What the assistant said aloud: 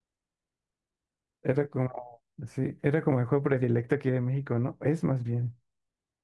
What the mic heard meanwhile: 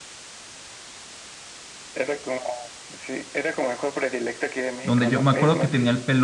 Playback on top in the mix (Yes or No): No